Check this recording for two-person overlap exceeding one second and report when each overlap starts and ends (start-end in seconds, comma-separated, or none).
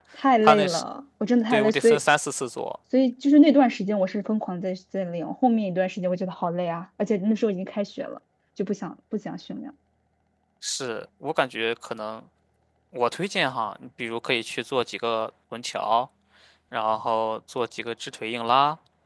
none